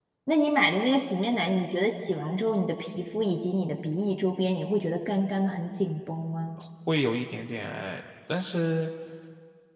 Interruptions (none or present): none